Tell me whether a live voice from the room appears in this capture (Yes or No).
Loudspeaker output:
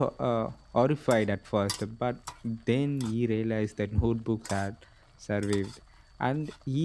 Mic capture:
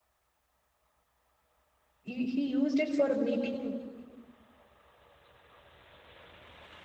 Yes